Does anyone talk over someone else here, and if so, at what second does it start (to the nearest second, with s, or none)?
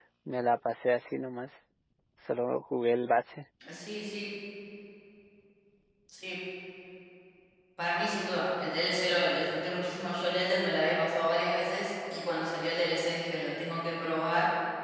none